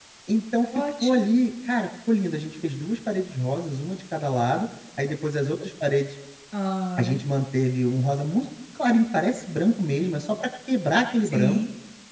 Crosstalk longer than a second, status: none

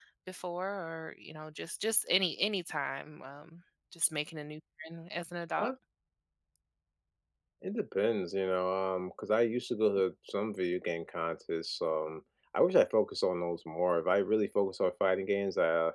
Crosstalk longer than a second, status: none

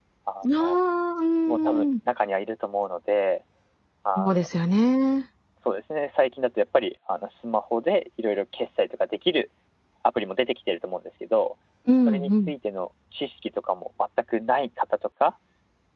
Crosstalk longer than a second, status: none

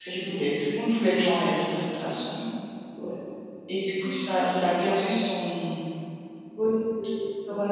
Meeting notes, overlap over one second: none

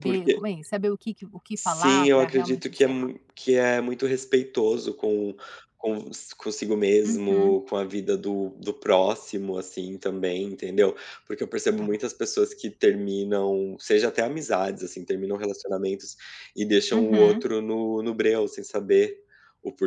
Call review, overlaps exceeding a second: present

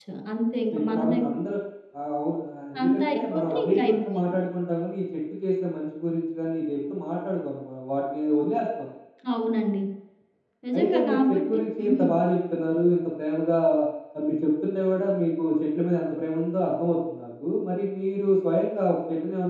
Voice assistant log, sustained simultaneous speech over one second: present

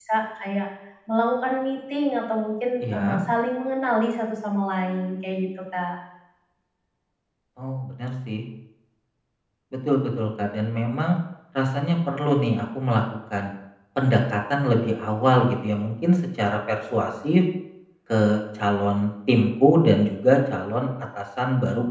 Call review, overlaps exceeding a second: none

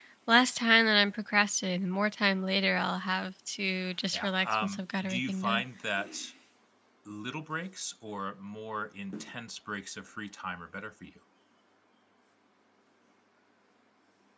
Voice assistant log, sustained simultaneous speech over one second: present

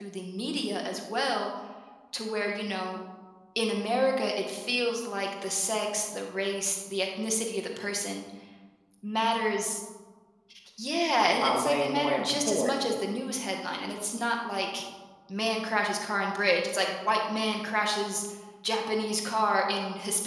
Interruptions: present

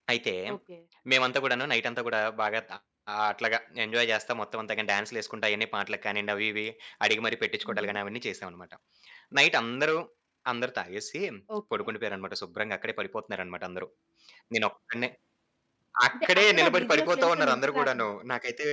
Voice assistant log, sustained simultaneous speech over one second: present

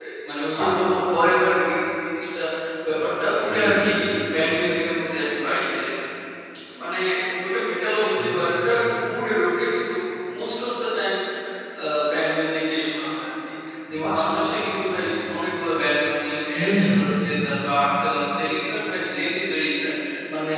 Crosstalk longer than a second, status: none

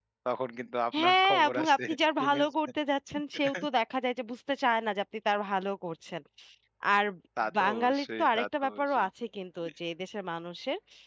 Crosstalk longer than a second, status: present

